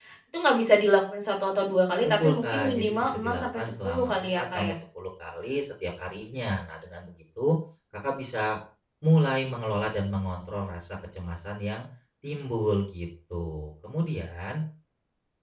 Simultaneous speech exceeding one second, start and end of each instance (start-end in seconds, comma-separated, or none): 2.0-4.7